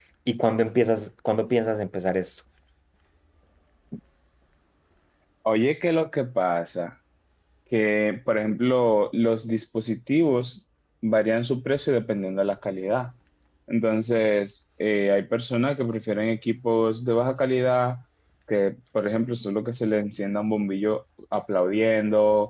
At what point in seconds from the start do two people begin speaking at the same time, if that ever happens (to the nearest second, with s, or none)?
none